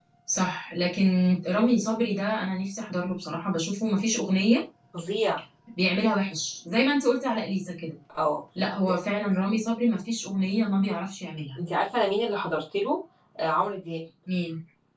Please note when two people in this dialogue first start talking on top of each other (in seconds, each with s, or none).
none